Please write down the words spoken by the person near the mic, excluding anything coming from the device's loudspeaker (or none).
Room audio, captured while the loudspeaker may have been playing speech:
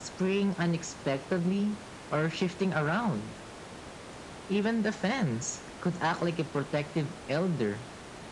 none